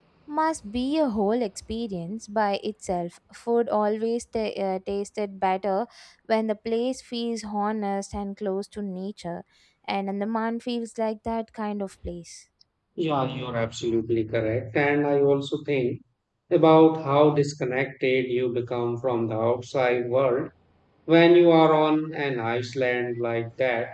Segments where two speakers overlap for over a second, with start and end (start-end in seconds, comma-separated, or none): none